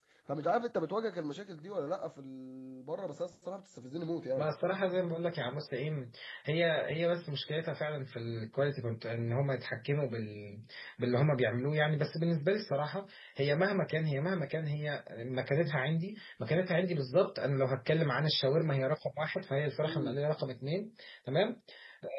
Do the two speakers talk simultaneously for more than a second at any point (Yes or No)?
No